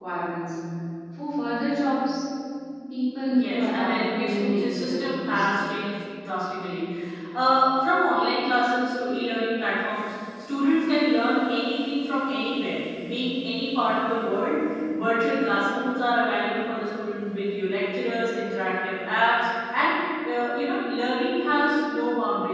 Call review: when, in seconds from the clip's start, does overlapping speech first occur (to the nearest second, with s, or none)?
3 s